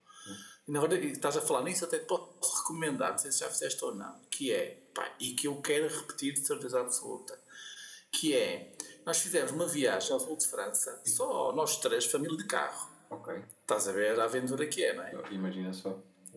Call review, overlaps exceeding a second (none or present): none